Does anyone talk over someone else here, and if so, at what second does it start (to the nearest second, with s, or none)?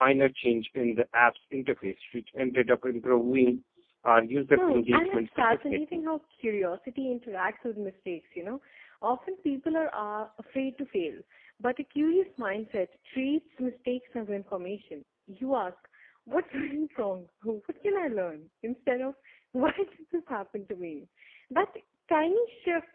5 s